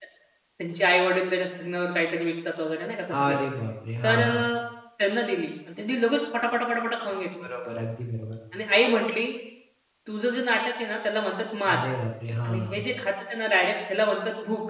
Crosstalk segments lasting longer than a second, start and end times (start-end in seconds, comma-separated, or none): none